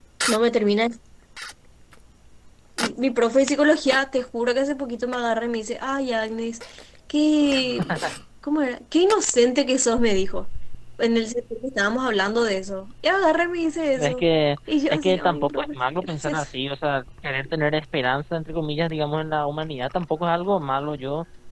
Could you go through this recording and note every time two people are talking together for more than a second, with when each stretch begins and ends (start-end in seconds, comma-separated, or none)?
14.9-16.5